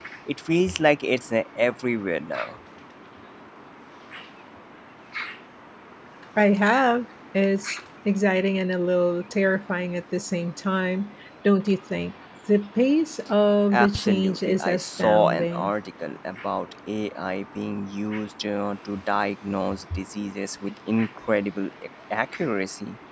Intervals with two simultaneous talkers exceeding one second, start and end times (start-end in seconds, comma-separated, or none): 13.7-15.7